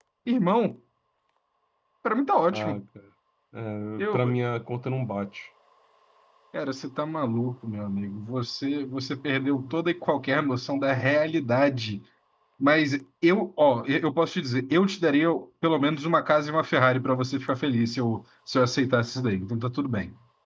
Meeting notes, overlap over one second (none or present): none